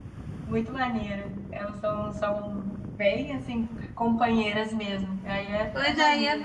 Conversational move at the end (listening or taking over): taking over